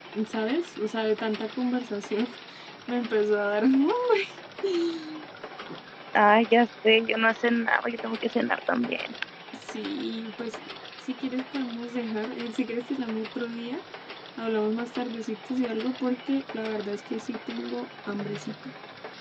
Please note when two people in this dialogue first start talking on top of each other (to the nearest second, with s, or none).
none